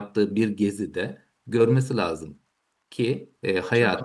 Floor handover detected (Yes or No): No